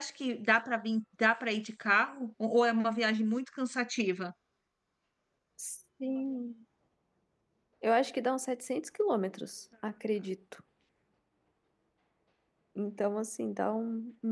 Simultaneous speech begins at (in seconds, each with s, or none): none